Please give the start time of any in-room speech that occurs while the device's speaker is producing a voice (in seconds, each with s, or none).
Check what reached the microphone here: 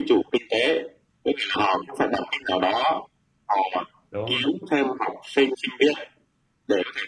4.1 s